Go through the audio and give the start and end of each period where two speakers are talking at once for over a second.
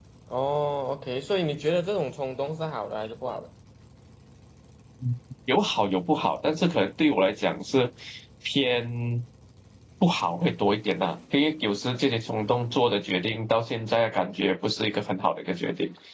none

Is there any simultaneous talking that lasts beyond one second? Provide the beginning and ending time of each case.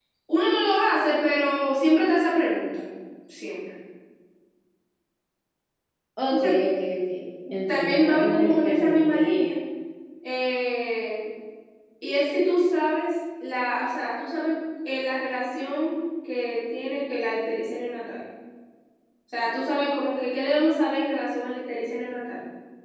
7.7-9.2

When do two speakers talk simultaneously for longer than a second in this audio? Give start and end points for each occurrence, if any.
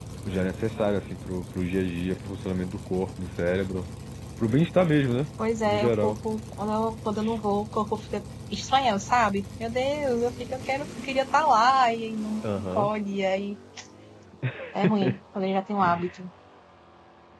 none

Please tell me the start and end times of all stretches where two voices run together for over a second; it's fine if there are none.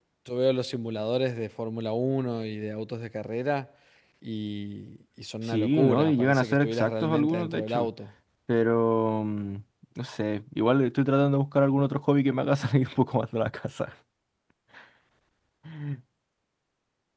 5.5-7.9

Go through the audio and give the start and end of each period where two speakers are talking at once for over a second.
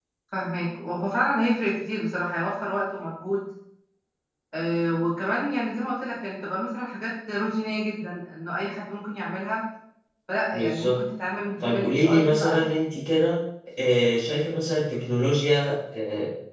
11.6-12.8

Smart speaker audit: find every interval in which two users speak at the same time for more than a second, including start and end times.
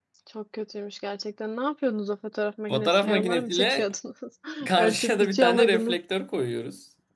2.7-3.9, 4.8-6.0

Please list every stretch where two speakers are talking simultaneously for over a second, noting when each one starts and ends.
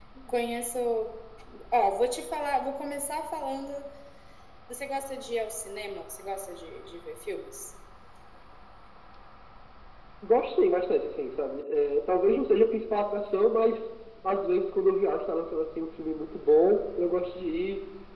none

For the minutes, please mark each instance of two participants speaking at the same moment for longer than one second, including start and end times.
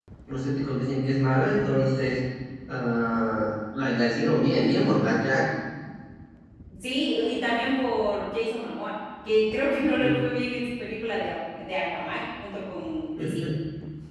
none

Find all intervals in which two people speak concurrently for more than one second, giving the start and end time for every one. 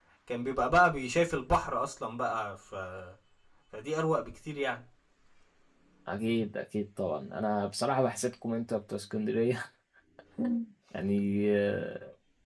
none

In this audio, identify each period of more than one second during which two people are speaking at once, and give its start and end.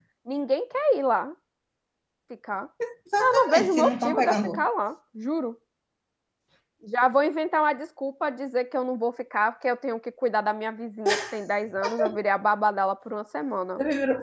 3.2-4.7

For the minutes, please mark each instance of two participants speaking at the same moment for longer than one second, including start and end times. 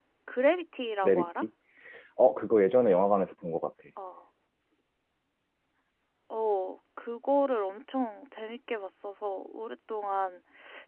none

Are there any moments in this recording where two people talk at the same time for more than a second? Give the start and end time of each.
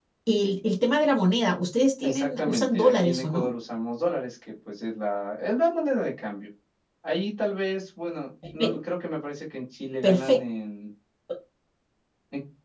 2.0-3.5

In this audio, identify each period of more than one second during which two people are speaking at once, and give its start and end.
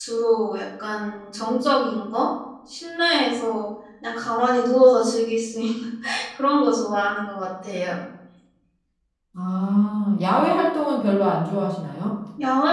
none

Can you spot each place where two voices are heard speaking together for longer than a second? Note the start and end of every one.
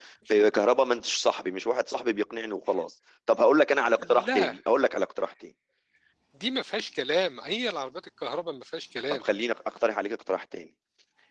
none

